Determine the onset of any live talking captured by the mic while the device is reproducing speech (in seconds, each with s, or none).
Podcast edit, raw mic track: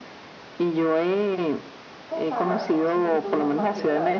2.1 s